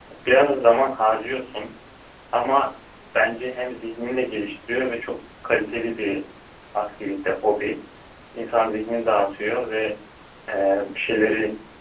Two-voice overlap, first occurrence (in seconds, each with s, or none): none